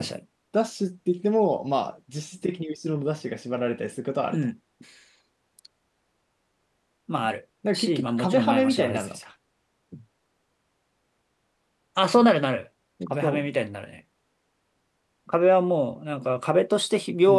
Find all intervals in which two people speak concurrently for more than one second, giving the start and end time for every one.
7.7-9.2

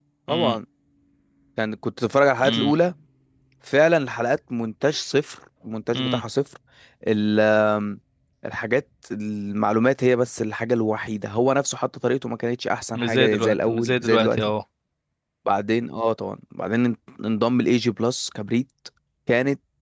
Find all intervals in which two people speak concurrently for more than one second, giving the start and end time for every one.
12.9-14.4

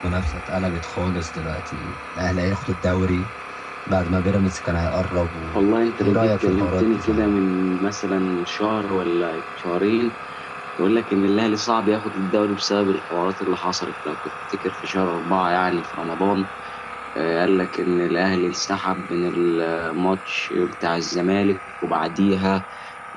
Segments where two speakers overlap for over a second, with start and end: 6.0-7.3

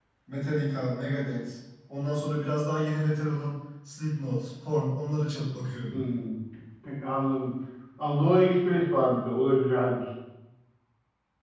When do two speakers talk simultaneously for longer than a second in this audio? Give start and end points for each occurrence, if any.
none

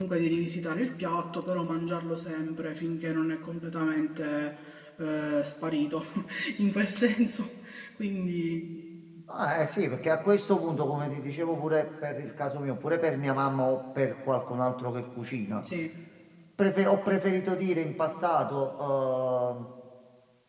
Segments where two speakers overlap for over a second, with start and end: none

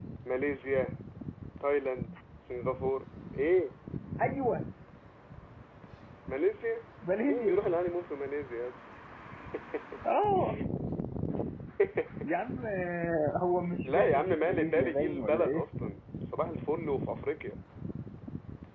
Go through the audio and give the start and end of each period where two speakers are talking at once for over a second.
13.8-15.6

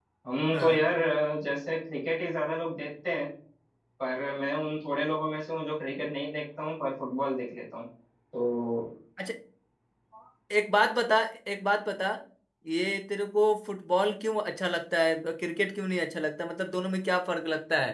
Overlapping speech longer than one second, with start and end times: none

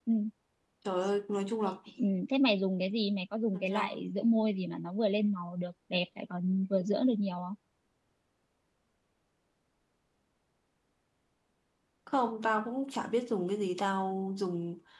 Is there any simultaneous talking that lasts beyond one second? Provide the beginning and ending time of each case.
none

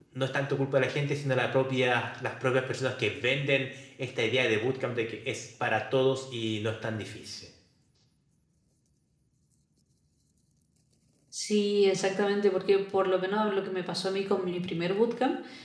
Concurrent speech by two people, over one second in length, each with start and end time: none

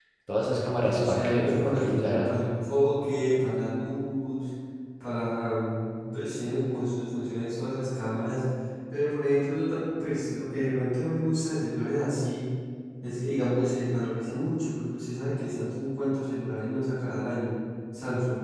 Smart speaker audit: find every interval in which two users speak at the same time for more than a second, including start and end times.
0.8-2.3

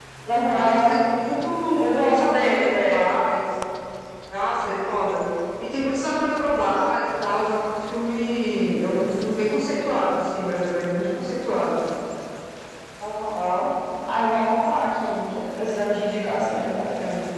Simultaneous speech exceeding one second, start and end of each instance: 1.8-3.1

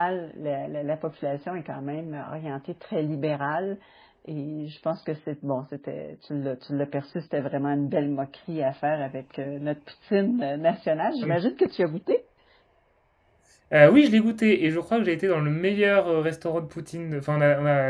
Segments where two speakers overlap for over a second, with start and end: none

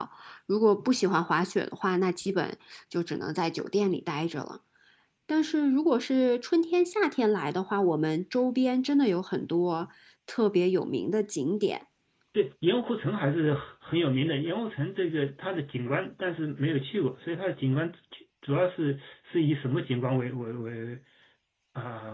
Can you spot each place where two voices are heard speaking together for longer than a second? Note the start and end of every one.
none

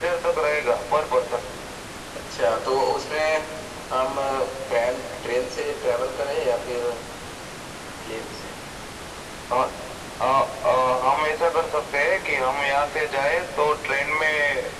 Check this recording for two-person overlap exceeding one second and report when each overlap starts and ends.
none

